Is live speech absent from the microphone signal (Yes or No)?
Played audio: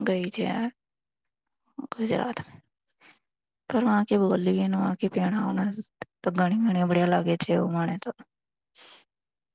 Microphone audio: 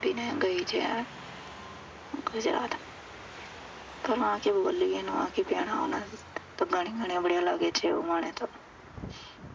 Yes